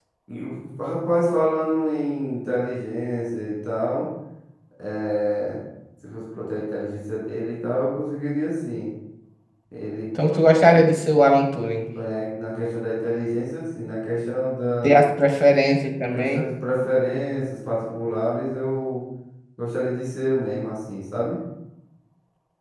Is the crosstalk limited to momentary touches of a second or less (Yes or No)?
Yes